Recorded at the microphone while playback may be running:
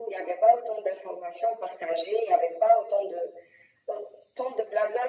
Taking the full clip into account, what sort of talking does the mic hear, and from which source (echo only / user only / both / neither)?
echo only